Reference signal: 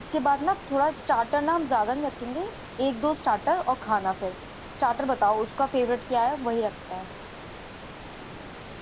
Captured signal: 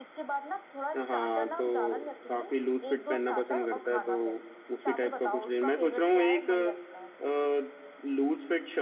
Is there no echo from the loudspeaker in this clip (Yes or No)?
No